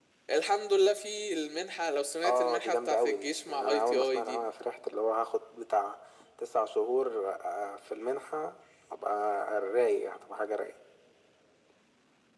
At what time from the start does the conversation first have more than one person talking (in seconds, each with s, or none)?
2.2 s